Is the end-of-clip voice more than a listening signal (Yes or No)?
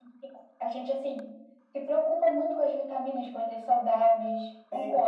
Yes